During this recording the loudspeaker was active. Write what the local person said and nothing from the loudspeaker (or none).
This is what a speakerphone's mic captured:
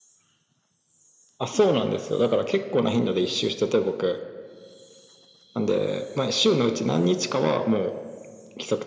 none